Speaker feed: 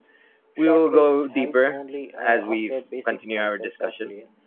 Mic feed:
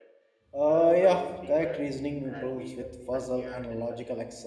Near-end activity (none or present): present